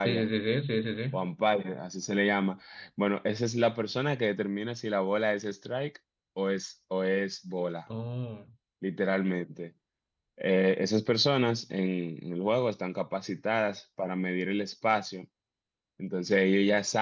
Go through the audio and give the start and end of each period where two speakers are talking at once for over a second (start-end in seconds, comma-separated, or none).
none